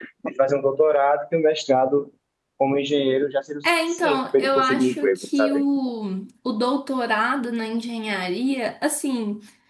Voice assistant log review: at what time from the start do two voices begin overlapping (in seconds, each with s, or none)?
3.9 s